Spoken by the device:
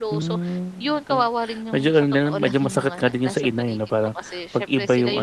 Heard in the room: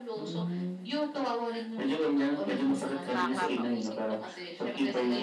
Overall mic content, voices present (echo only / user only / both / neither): both